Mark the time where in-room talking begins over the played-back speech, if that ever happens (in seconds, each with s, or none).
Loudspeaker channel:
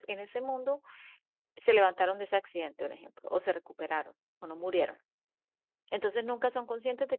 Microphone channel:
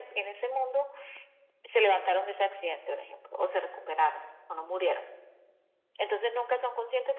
none